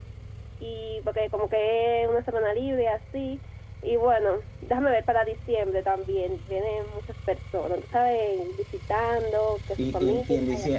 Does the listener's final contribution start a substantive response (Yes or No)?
Yes